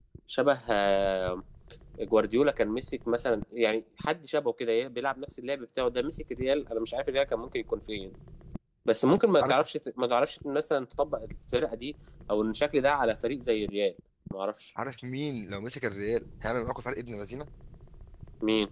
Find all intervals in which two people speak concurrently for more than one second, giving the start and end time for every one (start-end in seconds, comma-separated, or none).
none